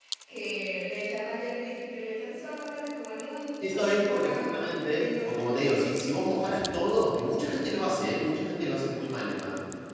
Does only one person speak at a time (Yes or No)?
No